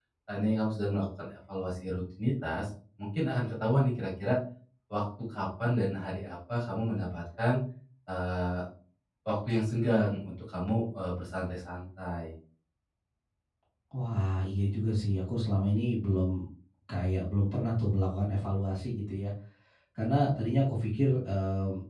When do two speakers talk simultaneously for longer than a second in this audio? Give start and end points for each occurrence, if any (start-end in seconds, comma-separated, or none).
none